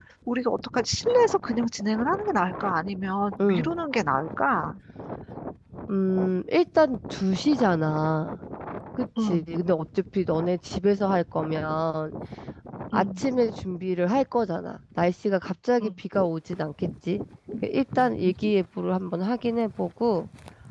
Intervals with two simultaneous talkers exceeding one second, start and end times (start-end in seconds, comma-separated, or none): none